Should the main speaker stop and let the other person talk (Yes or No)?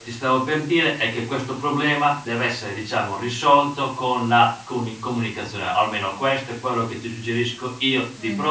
No